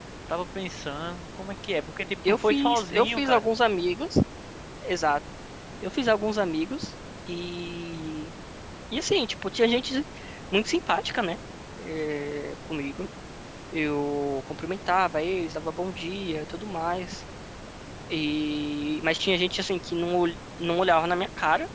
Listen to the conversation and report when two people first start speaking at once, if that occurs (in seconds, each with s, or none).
2.2 s